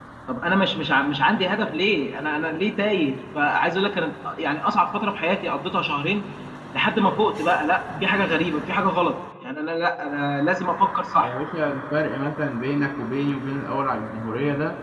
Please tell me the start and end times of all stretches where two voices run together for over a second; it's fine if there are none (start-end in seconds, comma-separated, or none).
none